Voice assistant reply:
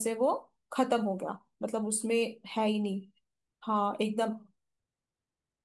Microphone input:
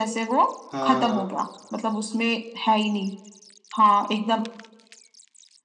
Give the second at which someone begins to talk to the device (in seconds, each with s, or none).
0.7 s